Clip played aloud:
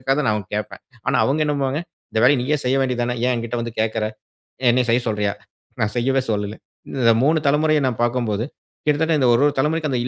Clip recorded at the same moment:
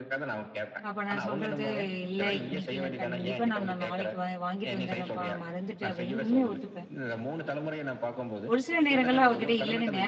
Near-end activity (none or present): present